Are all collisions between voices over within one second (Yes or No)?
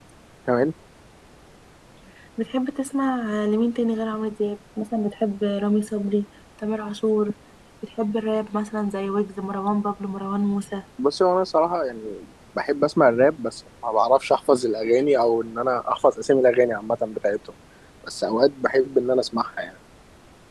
Yes